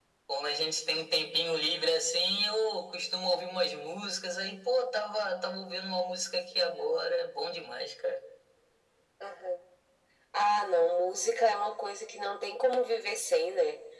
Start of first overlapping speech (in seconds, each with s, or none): none